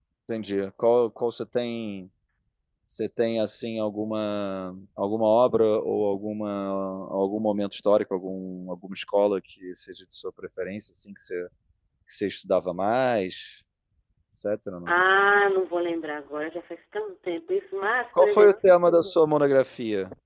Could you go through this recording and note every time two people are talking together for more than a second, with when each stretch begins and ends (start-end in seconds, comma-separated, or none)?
none